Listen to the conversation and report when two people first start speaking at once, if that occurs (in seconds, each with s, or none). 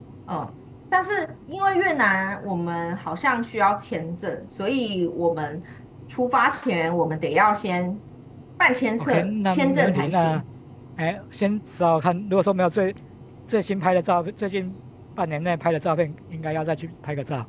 9.0 s